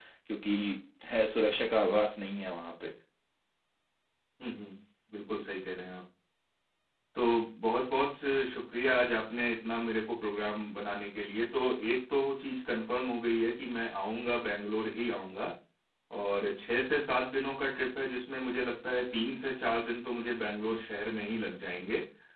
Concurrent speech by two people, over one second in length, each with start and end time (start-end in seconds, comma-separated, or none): none